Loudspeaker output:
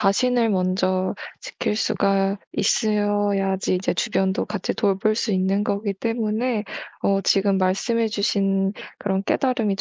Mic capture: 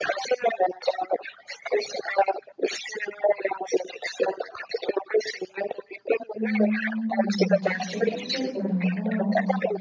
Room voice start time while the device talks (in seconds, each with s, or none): 6.4 s